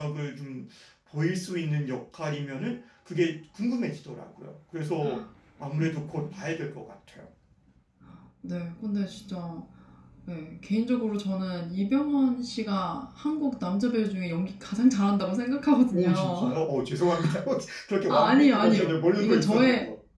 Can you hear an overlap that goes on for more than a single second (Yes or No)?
Yes